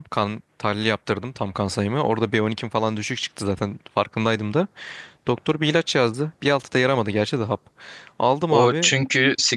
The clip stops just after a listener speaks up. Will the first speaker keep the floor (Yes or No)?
No